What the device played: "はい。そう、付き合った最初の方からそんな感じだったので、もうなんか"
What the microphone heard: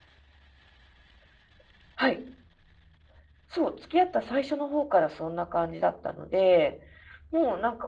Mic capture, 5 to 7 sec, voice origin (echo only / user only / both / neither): echo only